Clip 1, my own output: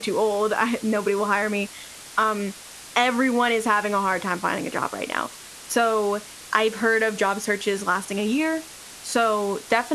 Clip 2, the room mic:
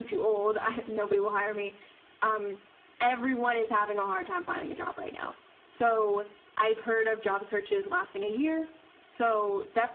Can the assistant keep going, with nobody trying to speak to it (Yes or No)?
Yes